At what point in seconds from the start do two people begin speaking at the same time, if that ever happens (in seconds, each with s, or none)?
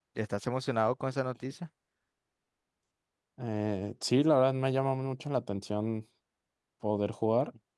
none